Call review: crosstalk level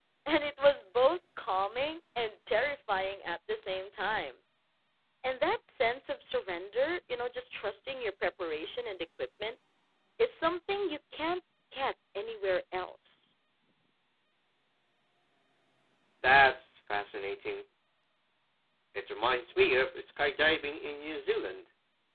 none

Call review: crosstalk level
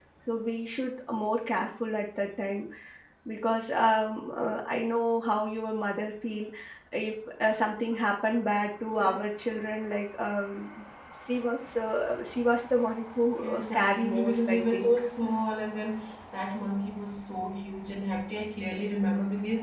present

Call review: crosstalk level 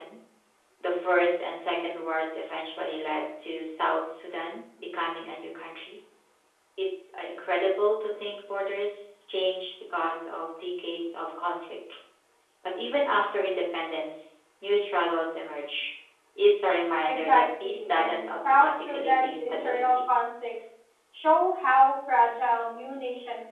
present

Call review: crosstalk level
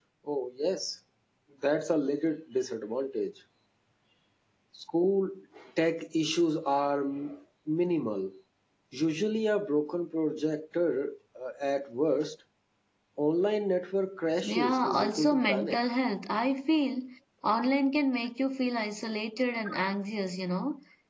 present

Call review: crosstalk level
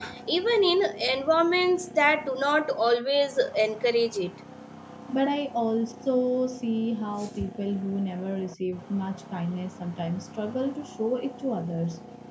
none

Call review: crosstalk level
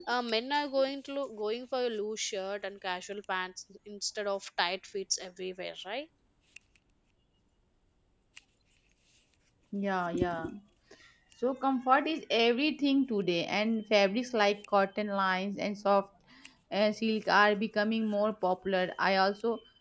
none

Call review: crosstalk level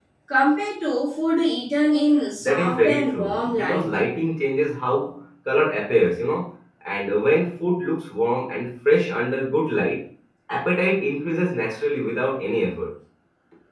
present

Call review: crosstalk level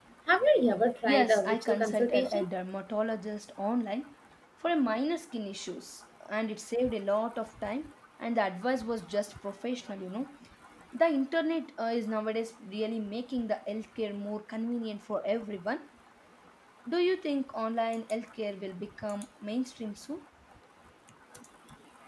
present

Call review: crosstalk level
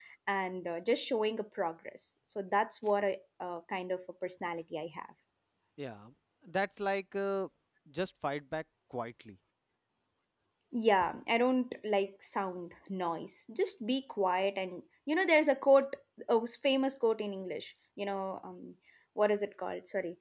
none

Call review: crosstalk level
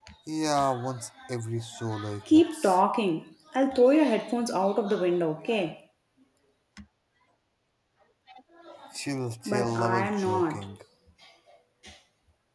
present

